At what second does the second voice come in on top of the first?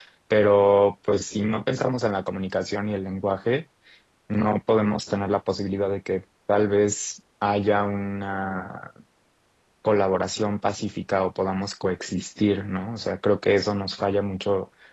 none

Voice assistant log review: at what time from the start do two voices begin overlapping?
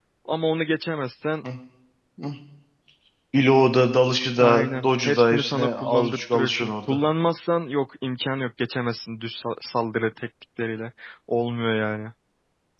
4 s

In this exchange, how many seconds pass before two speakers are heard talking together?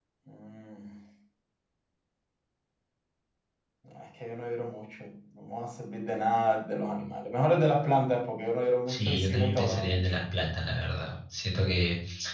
9 s

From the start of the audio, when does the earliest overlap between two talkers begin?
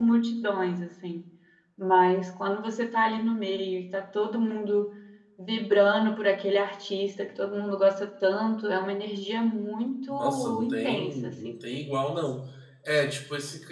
10 s

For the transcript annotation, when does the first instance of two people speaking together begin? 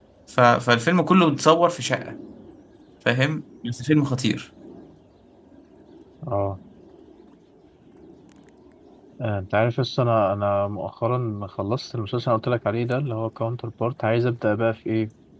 none

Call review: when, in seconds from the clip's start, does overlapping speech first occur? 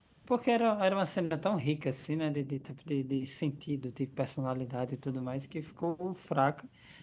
none

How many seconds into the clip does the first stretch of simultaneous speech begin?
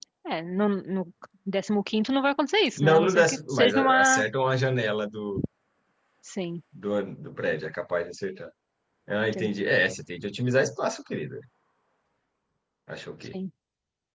3 s

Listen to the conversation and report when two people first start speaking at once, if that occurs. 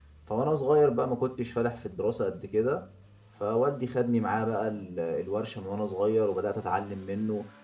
none

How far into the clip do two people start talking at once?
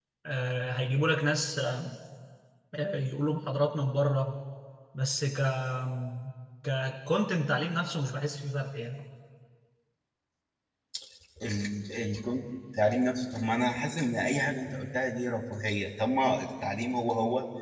none

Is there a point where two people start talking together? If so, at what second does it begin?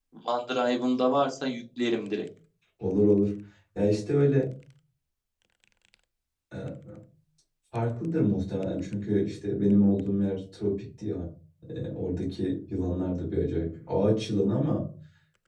none

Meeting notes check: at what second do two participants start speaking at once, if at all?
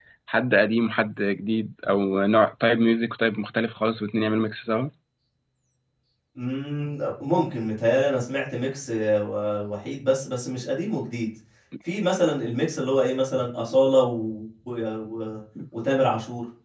none

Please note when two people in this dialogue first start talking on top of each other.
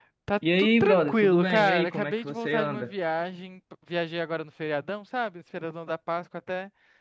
1 s

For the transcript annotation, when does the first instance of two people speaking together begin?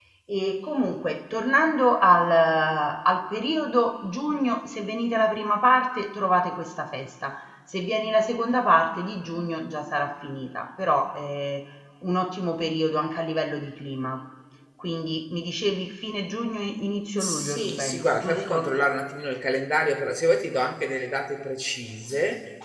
17 s

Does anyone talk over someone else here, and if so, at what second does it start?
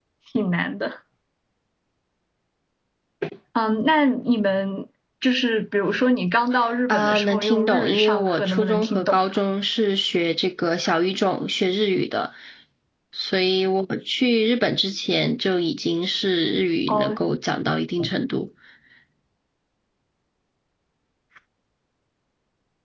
7 s

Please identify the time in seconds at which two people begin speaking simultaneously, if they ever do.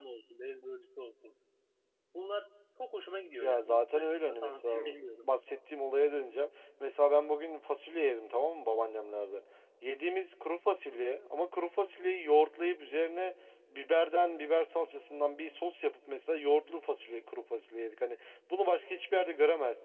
3 s

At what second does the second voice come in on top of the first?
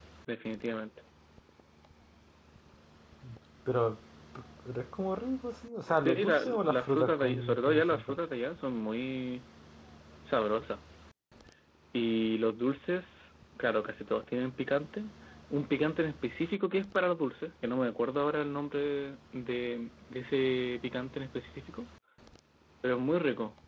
6 s

